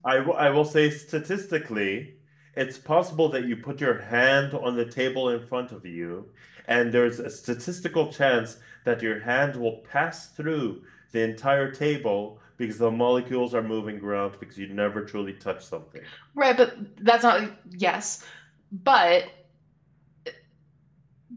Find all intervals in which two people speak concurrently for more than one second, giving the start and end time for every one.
none

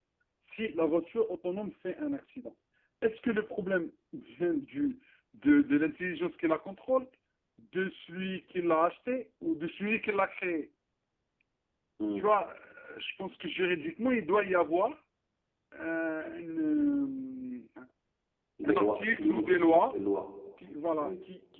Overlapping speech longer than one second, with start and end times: 18.6-19.9

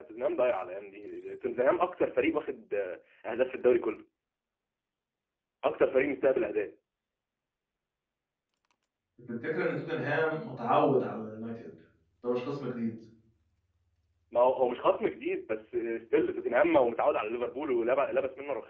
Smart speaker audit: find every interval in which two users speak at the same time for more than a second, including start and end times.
none

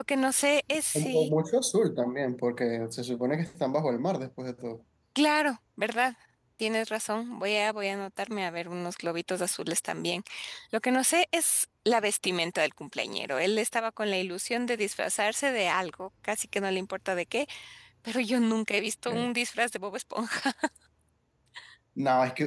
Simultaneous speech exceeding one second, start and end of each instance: none

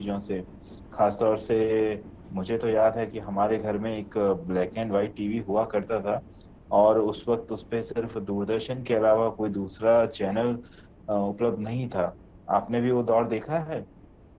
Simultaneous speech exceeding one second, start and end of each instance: none

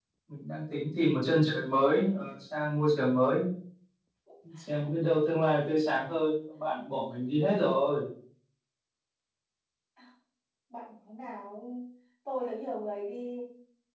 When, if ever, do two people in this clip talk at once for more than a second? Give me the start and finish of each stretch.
none

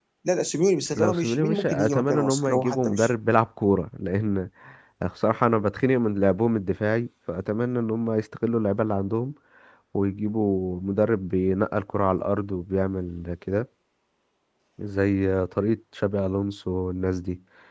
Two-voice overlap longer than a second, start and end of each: 1.0-3.1

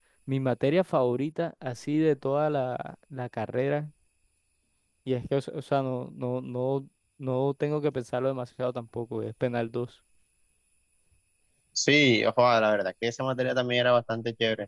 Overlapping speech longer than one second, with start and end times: none

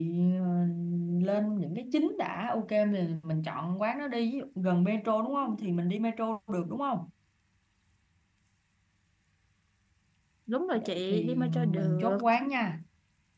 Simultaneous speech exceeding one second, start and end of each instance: 10.7-12.2

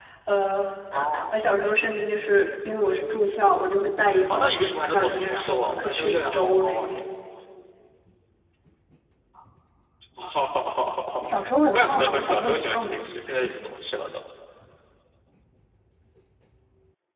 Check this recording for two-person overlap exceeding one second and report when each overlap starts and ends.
4.9-7.0, 11.7-13.0

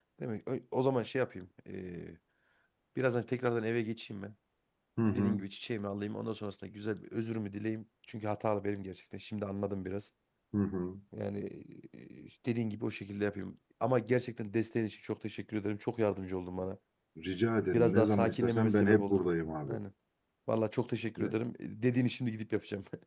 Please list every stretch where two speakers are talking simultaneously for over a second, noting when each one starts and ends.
17.7-19.2

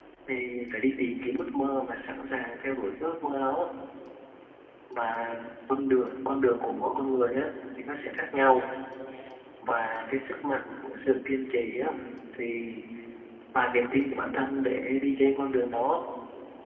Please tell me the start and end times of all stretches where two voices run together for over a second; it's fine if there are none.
none

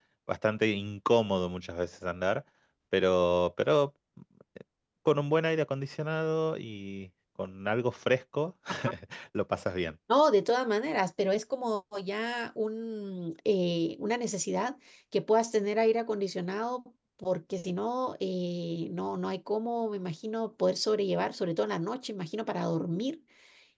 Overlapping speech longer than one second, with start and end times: none

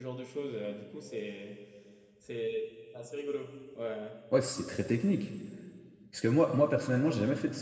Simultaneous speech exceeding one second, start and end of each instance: none

